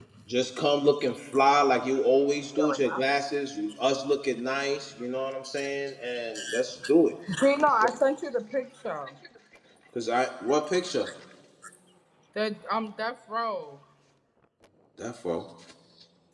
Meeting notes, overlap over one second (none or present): none